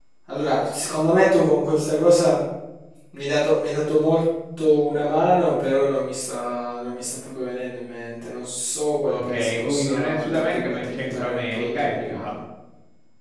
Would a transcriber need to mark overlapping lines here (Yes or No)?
Yes